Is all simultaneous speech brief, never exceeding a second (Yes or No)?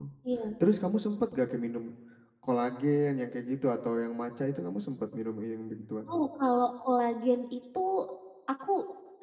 Yes